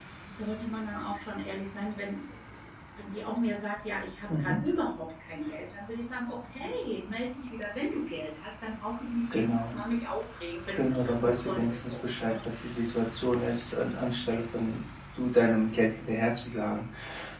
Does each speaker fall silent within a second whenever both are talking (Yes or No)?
No